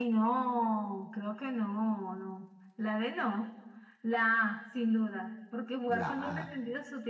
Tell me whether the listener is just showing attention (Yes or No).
Yes